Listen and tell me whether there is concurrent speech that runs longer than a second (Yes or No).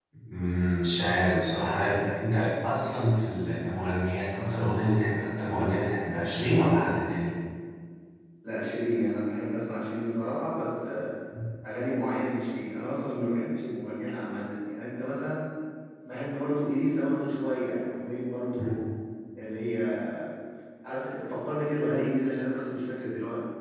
No